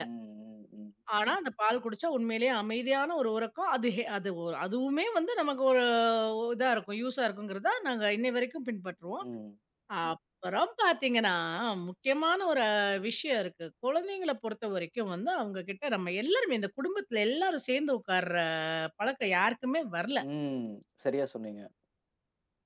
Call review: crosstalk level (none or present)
none